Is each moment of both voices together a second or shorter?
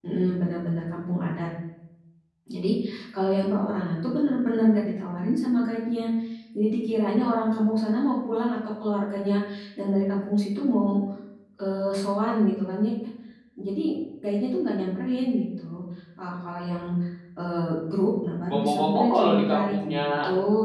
No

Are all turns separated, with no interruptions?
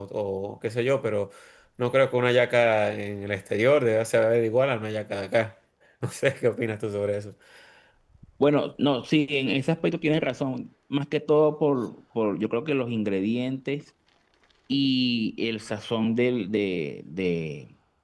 Yes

